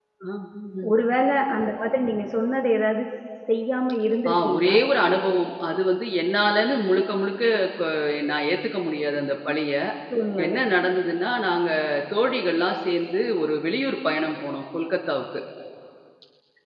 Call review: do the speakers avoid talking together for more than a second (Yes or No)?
Yes